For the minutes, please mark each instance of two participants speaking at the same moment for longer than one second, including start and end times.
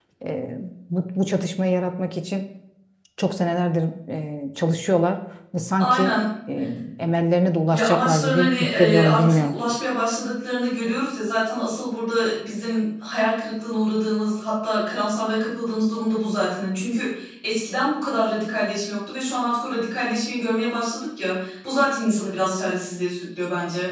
7.7-9.6

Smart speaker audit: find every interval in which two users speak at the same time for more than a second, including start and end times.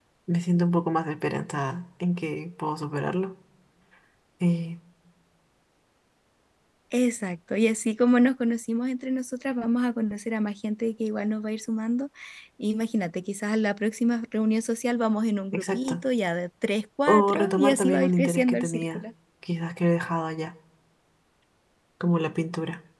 17.1-19.0

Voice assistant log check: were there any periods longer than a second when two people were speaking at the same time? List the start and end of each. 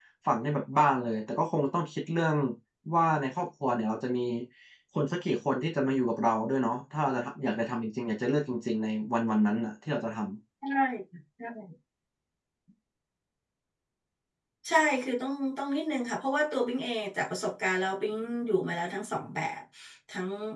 none

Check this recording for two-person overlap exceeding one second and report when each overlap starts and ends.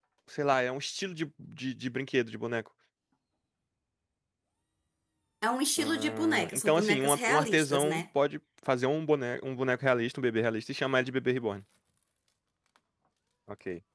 5.8-8.0

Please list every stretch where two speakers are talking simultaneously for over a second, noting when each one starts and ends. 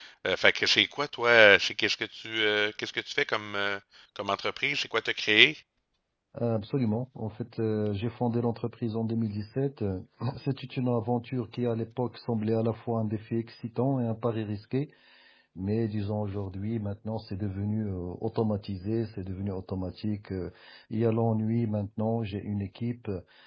none

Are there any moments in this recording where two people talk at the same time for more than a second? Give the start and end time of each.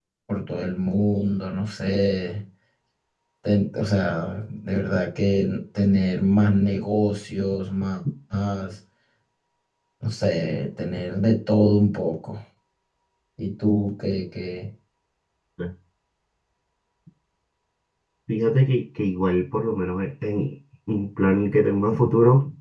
none

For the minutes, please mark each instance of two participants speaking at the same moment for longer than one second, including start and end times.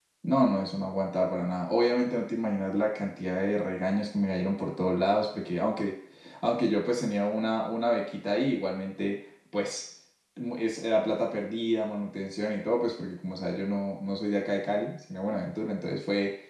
none

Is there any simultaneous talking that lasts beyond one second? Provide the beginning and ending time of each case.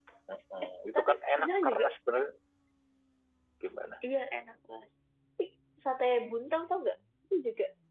0.6-1.9

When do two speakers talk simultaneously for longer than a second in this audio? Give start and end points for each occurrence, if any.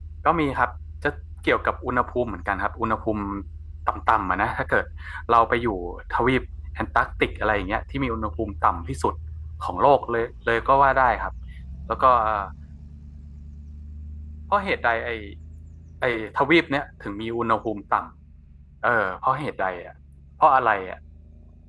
none

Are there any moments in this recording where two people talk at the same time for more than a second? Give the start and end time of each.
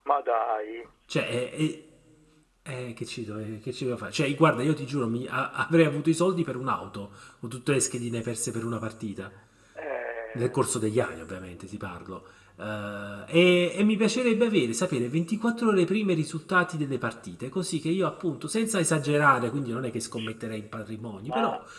none

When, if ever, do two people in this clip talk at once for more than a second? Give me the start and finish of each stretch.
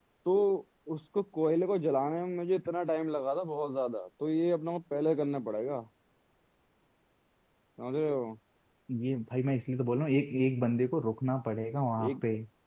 none

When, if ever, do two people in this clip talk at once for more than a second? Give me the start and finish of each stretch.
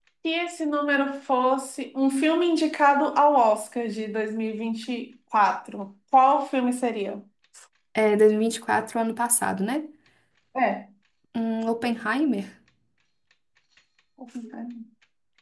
none

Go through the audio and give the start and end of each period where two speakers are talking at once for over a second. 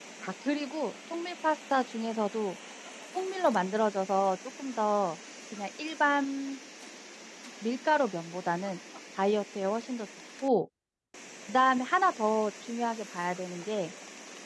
none

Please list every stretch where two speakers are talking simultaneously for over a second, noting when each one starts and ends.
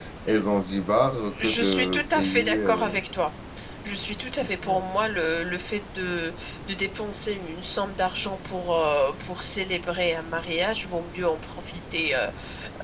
1.4-3.0

